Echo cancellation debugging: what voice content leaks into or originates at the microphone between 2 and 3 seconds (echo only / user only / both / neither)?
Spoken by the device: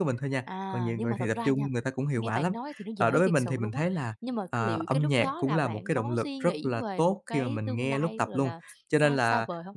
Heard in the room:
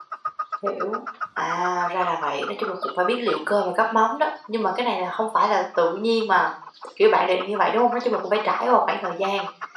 user only